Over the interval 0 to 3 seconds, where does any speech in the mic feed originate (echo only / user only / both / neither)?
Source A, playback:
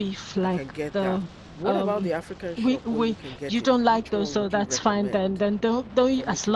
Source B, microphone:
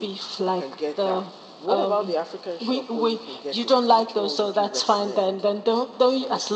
echo only